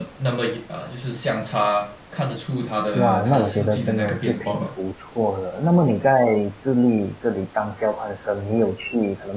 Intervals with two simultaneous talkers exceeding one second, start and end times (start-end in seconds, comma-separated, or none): 2.9-4.7